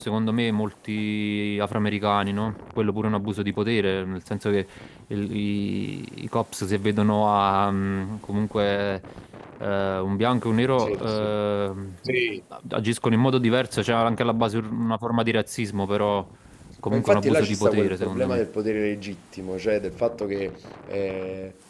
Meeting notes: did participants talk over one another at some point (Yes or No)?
Yes